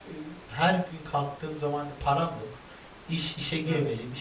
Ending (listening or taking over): listening